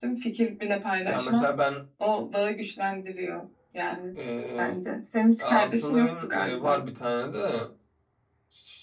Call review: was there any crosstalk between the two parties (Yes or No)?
Yes